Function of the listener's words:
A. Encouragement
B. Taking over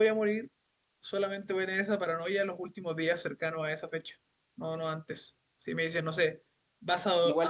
B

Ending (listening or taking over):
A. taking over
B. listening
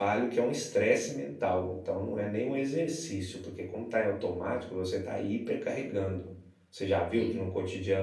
B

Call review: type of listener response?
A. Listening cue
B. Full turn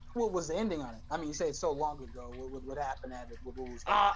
B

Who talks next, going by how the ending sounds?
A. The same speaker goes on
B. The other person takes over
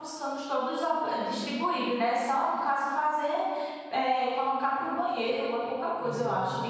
B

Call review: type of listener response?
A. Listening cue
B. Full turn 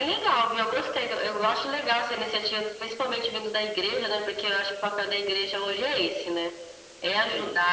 A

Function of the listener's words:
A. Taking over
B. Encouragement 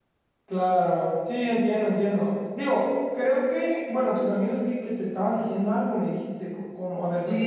A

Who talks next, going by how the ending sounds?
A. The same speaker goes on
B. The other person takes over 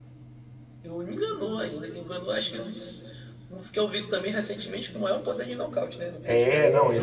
B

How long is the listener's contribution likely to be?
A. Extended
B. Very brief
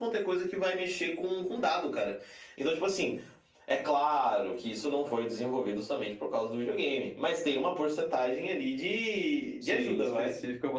A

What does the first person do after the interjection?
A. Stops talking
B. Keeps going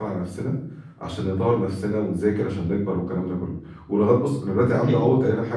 B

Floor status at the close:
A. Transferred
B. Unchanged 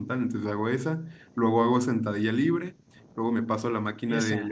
B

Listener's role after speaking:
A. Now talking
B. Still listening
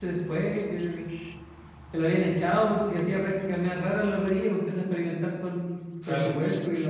B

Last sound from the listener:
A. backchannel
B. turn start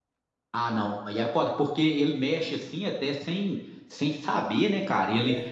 A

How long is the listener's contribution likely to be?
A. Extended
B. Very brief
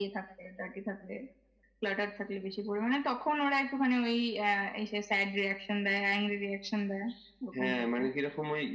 A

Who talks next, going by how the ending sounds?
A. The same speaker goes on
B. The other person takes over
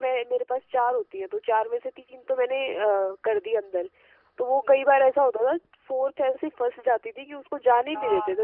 B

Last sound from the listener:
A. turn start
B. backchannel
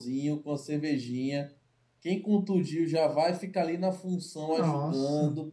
B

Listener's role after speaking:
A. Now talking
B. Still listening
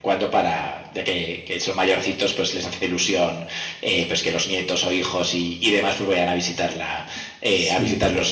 B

